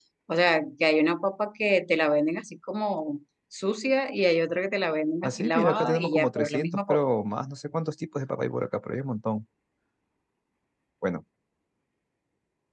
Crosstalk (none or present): present